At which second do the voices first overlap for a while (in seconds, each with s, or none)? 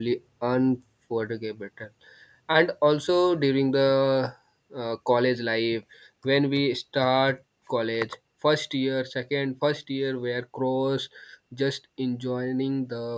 none